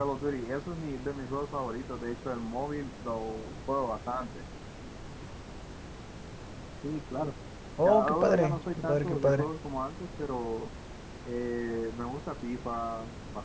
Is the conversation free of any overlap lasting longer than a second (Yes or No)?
No